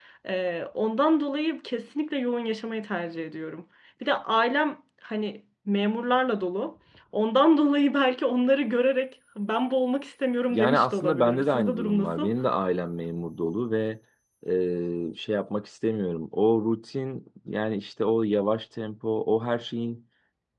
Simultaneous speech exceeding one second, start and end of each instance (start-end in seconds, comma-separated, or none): 10.5-12.3